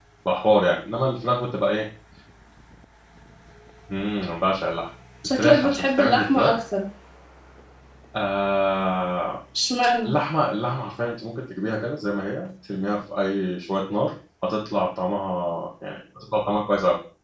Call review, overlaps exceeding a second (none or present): present